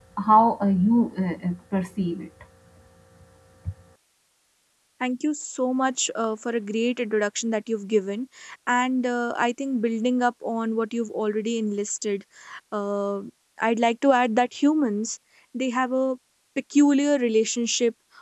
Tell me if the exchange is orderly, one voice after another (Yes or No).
Yes